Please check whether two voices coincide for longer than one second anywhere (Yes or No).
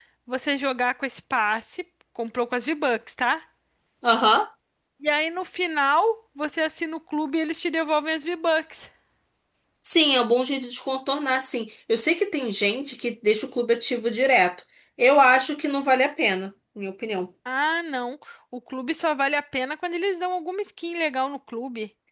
No